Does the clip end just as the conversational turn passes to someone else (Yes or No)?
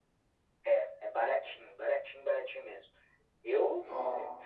No